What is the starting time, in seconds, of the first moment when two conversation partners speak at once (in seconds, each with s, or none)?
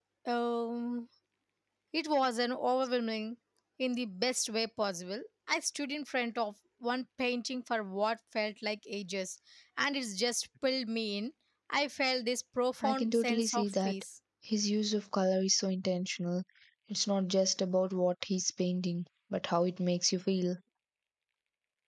12.8 s